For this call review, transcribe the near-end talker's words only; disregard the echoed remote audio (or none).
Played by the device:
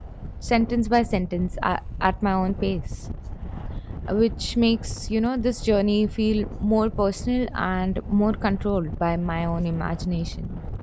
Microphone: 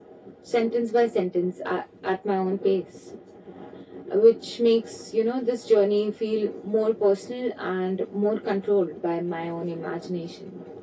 none